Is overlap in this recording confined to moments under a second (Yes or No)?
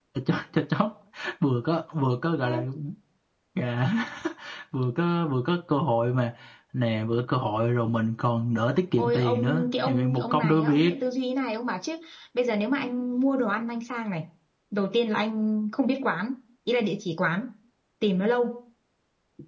No